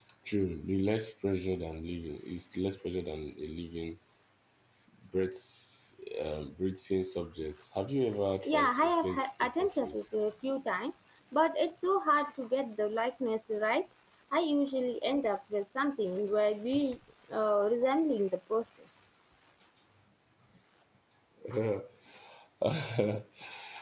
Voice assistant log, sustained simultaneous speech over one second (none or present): present